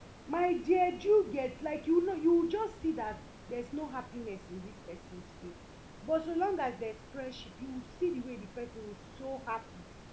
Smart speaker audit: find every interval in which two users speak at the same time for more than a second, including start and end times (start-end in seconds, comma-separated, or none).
none